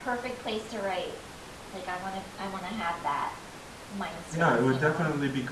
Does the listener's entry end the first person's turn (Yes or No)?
Yes